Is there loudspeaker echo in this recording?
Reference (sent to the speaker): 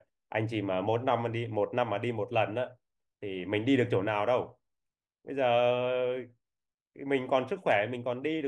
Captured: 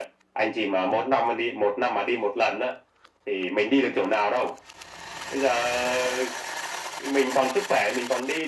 Yes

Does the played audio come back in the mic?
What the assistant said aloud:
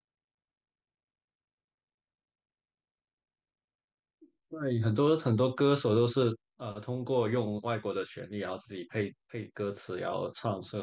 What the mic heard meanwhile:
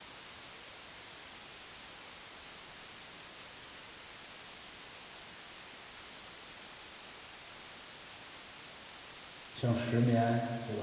No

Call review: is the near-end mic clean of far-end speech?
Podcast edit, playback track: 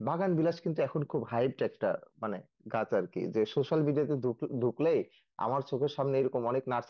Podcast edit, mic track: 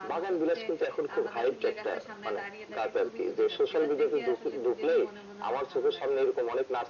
No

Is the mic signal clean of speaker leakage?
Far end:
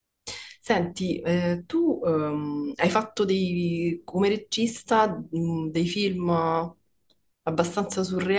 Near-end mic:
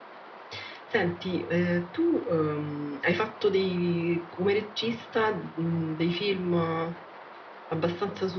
No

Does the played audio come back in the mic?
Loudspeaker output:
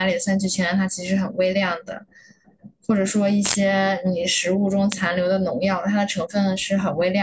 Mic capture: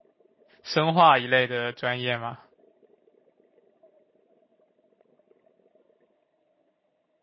No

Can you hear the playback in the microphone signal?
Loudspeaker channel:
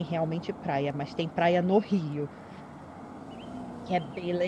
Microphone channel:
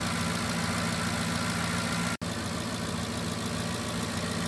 No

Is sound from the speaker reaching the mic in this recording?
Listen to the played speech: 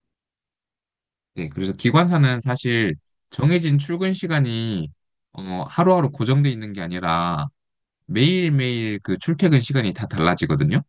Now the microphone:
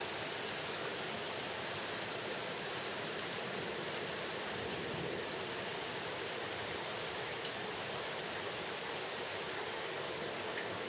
No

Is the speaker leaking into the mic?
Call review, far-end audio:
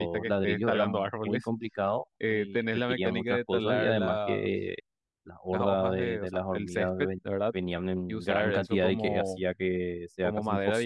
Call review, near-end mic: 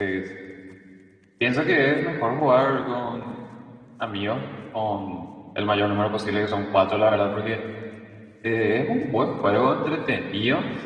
No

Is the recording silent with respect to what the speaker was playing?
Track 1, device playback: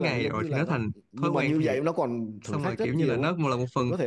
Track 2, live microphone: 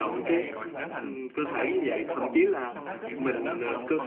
No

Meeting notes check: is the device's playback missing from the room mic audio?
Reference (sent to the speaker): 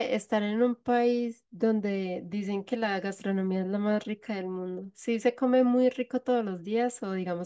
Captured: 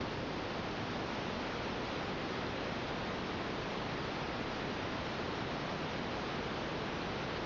Yes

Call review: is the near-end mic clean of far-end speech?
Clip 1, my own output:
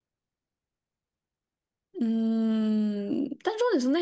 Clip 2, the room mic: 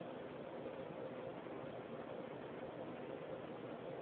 Yes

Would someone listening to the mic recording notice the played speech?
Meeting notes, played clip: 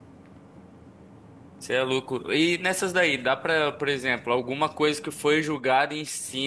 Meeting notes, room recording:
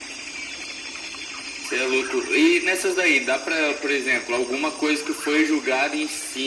Yes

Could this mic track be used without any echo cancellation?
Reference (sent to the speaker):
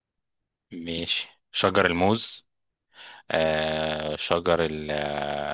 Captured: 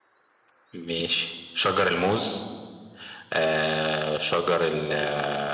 No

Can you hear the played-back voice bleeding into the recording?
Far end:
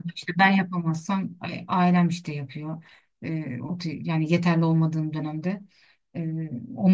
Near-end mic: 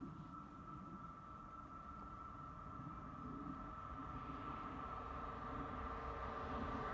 No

